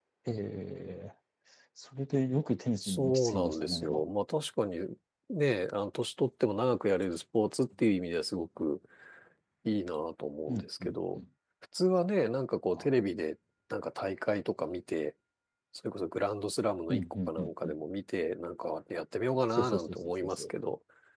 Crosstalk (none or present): present